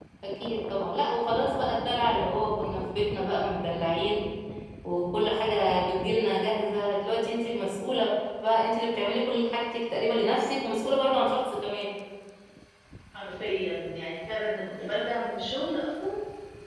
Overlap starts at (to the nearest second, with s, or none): none